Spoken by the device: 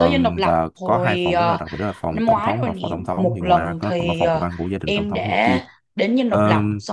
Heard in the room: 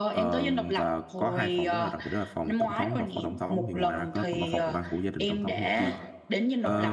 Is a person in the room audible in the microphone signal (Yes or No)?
Yes